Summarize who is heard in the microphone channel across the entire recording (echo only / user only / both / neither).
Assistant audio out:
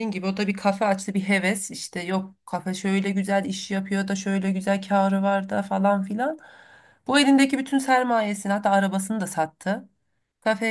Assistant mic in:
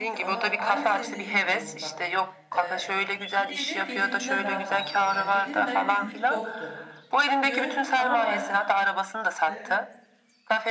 both